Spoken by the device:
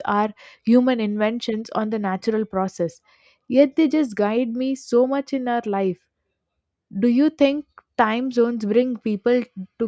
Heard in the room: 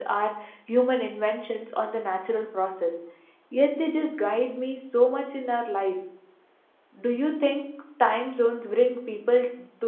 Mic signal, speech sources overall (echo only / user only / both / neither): echo only